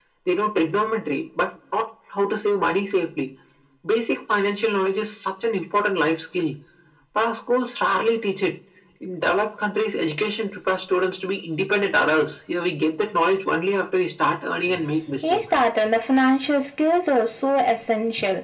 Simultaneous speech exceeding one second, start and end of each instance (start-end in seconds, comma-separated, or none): none